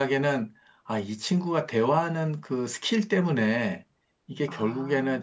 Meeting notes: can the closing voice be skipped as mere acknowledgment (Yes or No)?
Yes